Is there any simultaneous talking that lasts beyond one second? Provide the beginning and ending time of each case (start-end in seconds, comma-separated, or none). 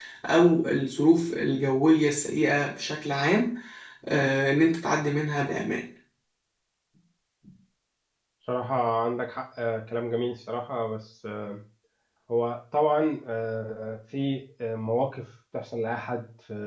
none